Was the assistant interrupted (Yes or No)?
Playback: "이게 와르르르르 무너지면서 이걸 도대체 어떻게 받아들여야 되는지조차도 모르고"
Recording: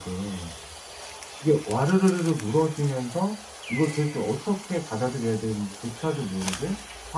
No